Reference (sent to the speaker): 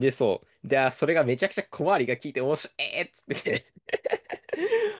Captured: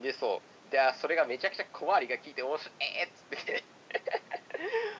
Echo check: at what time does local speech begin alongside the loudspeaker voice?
none

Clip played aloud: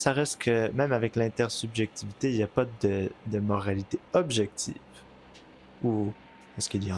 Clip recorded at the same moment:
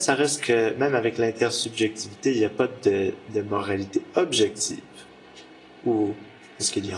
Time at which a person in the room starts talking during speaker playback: none

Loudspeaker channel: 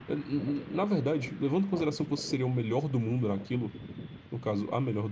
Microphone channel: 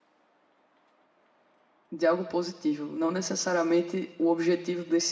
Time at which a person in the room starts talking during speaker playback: 2 s

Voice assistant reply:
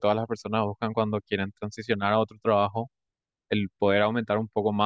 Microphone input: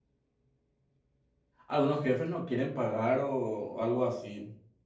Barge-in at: 2 s

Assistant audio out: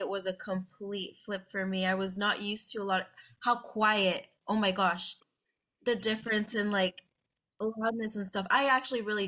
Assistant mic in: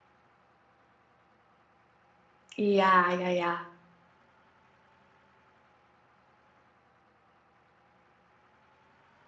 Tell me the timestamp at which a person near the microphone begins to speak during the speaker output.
3 s

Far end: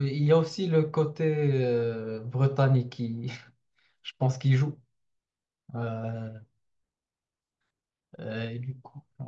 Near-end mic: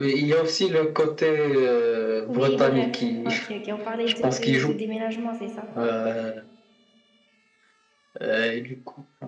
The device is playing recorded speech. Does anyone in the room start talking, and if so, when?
2 s

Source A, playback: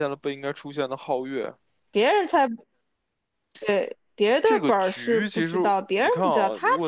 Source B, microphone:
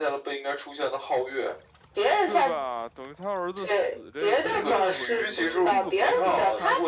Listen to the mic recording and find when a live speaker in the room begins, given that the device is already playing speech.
2 s

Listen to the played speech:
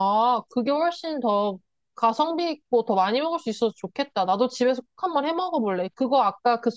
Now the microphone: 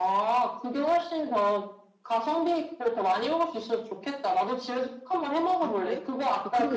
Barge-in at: 6 s

